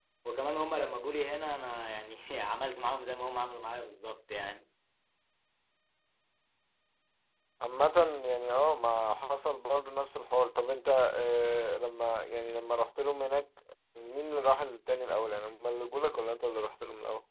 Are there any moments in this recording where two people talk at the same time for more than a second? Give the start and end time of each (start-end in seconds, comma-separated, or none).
none